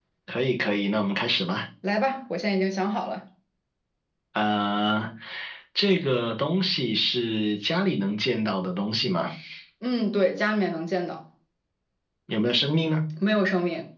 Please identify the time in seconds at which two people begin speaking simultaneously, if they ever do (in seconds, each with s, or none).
none